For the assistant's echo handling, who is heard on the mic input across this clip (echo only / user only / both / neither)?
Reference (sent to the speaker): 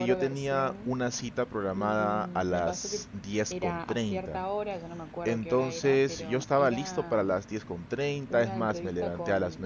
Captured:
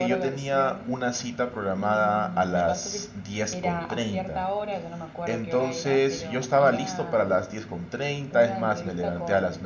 echo only